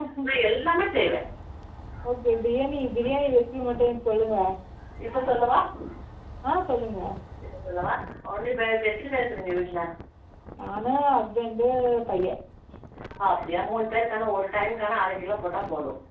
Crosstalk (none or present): none